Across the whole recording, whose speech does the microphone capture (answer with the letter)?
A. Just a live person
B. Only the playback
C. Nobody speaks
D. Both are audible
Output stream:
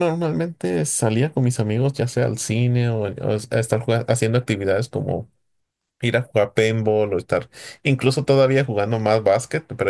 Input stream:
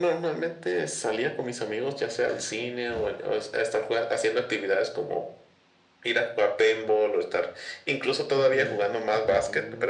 D